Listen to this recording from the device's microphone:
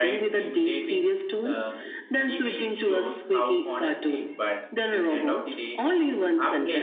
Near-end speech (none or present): present